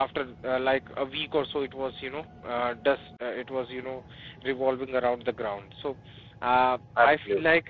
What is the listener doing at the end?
listening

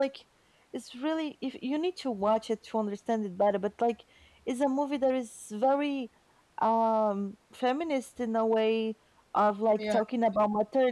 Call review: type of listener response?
listening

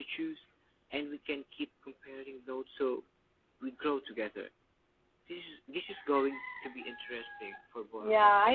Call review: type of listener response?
taking over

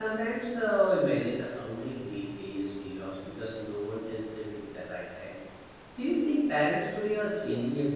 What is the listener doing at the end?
taking over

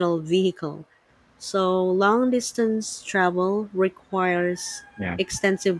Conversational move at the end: listening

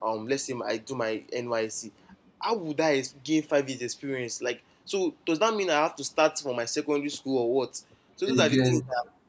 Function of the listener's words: listening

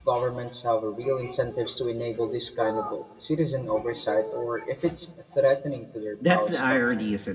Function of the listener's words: taking over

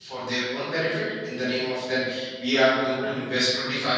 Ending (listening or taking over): listening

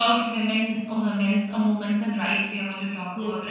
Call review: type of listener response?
taking over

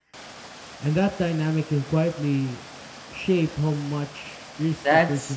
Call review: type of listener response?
taking over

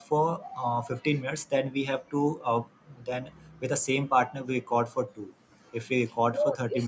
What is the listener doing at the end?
taking over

